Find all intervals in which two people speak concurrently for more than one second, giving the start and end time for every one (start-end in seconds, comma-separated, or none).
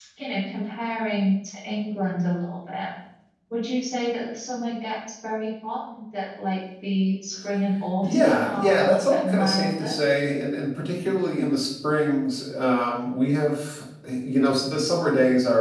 8.0-9.9